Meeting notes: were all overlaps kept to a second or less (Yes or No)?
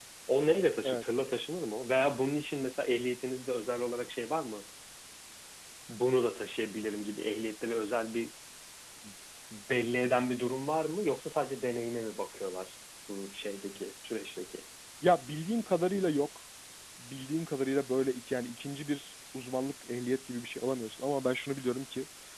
Yes